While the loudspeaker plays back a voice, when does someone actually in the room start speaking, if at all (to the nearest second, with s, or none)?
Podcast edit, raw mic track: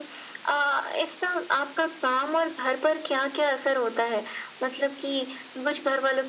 none